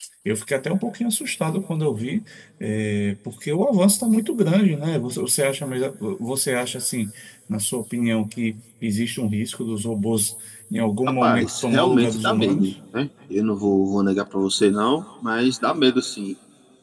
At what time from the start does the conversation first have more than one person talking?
11.1 s

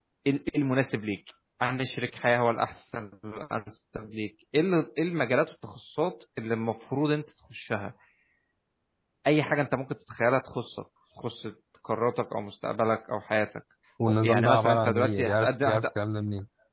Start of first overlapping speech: 14.2 s

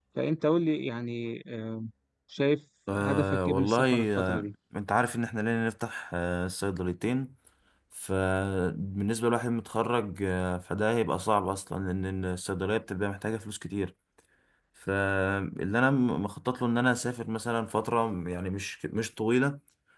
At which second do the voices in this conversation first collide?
2.9 s

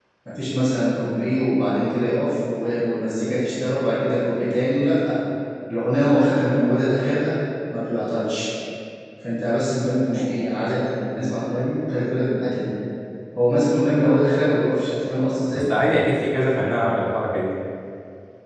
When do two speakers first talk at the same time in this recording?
none

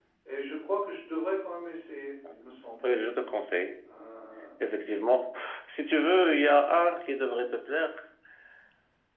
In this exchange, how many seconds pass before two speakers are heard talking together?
none

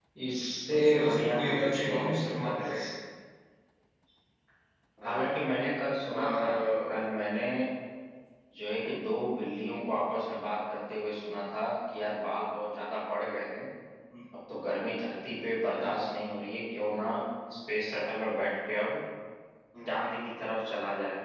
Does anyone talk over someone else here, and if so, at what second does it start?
0.7 s

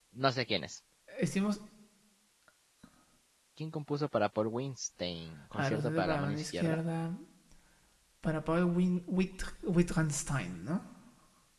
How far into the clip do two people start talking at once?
5.5 s

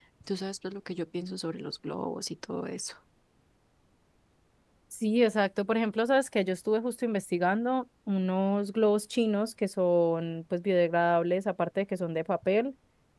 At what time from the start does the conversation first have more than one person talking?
none

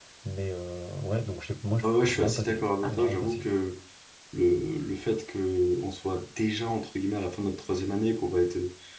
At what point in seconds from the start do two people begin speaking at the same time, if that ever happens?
1.8 s

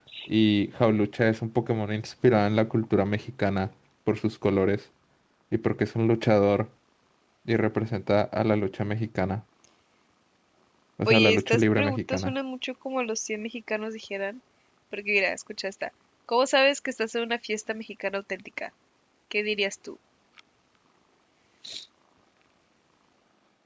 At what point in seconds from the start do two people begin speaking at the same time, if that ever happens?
11.1 s

